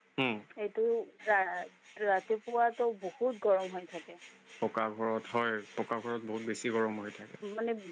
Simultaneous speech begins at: none

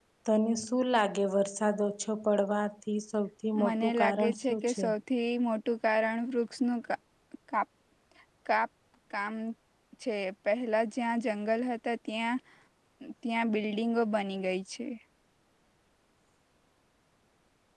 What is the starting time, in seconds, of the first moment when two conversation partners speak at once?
3.5 s

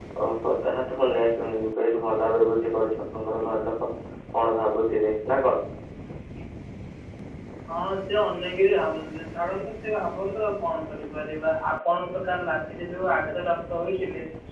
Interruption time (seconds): none

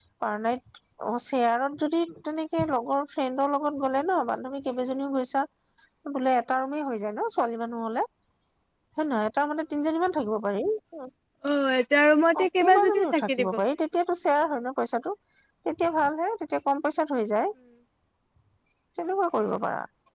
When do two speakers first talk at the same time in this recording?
12.4 s

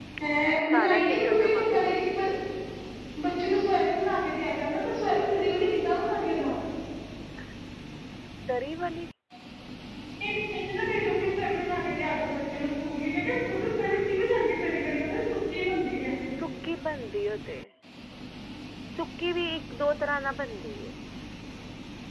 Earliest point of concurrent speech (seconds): 0.7 s

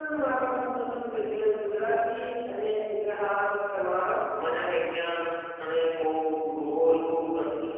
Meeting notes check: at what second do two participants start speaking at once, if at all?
none

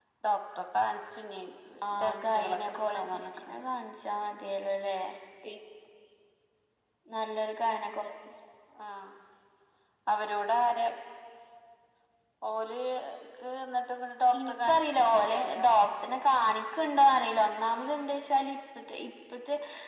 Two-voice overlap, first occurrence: 2.0 s

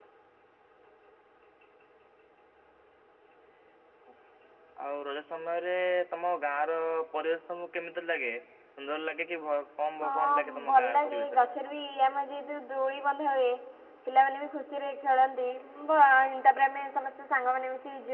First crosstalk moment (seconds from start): 10.0 s

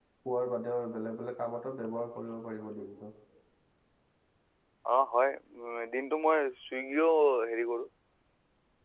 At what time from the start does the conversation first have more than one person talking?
none

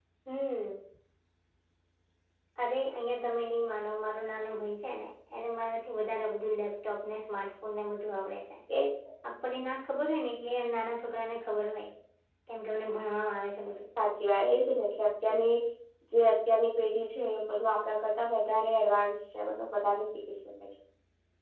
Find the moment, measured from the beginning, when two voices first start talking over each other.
none

